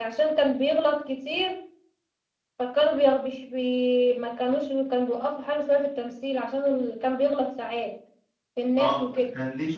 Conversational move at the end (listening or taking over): taking over